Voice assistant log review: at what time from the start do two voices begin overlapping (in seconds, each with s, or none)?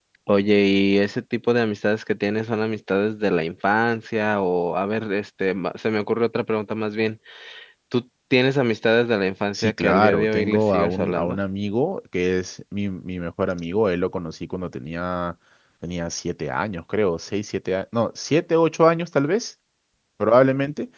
9.5 s